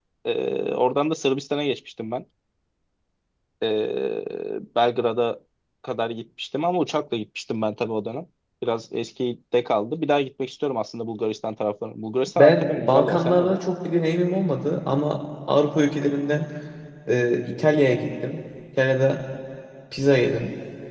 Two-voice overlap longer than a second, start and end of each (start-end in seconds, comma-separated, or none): 12.4-13.6